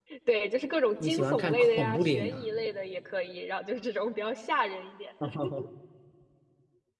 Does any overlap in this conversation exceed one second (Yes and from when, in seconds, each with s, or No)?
Yes, from 1.0 s